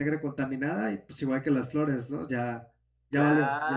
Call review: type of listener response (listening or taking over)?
taking over